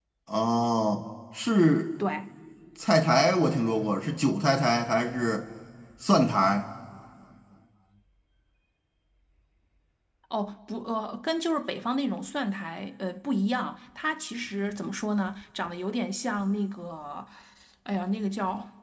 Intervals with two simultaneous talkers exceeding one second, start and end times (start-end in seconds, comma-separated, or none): none